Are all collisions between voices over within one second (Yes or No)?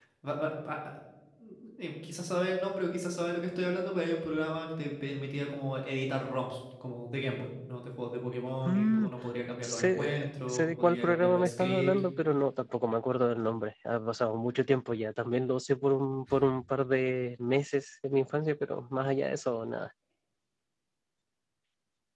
No